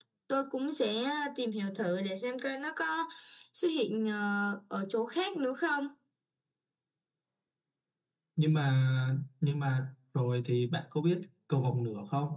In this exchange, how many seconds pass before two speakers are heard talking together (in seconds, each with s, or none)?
none